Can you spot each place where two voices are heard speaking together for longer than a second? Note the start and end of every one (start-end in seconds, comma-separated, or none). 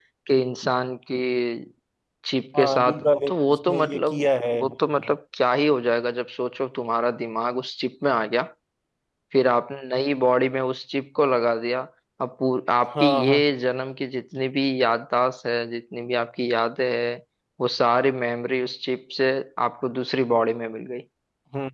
2.6-4.1